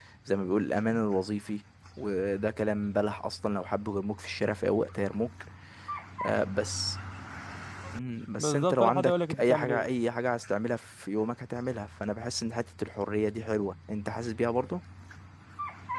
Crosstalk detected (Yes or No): Yes